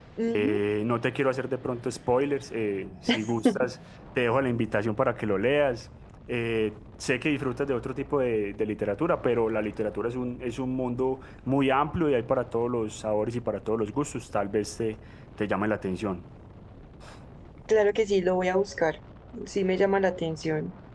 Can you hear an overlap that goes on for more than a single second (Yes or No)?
No